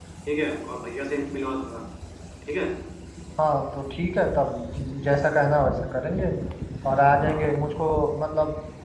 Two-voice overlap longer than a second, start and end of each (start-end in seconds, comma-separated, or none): none